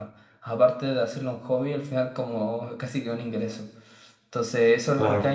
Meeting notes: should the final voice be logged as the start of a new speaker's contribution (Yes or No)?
No